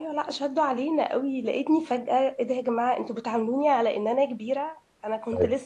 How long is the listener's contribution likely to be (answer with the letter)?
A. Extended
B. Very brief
B